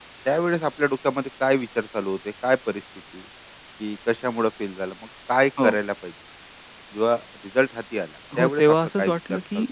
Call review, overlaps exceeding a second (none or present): present